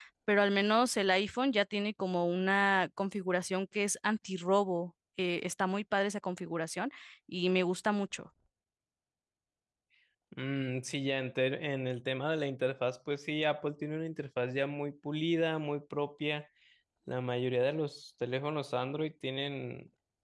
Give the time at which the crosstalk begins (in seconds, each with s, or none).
none